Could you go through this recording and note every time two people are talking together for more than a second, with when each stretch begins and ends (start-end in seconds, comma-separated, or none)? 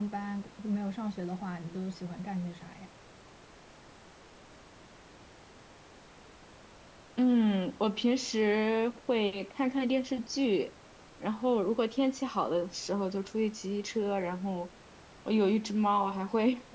none